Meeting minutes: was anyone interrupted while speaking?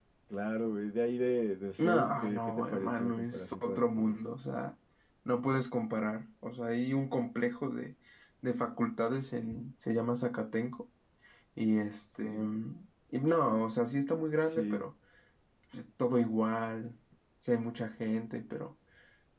Yes, from 1.8 s

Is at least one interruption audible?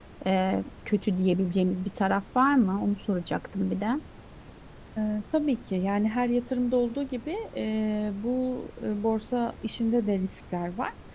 No

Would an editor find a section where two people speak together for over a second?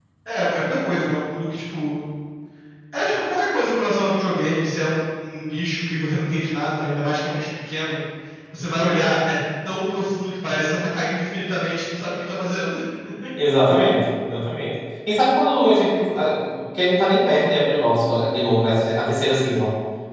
No

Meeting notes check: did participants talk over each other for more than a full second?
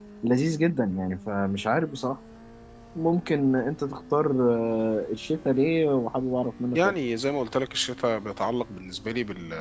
No

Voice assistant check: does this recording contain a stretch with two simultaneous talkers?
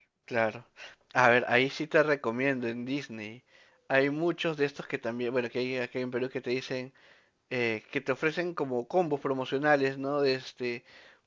No

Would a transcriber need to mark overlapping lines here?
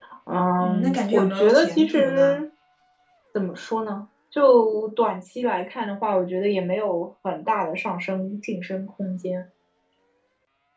Yes, from 0.6 s

